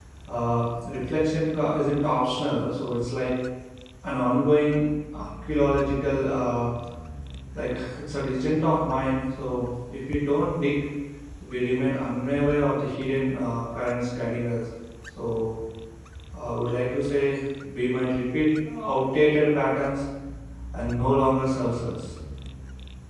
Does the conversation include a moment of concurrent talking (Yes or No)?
No